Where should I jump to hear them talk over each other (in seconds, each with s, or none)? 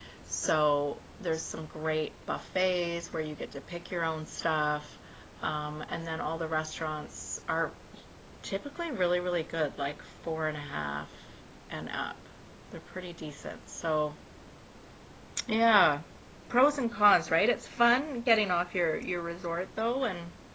none